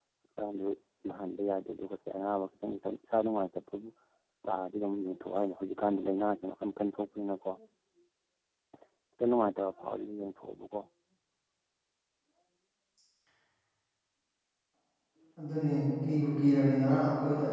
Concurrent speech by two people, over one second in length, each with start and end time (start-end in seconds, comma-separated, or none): none